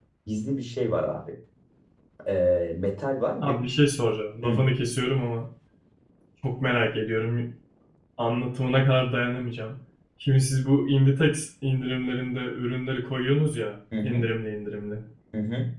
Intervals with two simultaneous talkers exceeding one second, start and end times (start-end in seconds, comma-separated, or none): none